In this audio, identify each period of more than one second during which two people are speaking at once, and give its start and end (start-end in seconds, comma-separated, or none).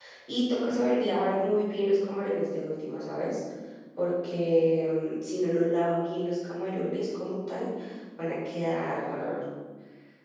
none